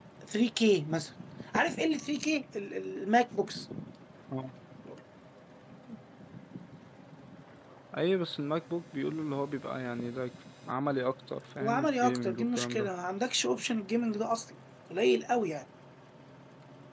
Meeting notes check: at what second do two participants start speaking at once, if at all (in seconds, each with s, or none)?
11.6 s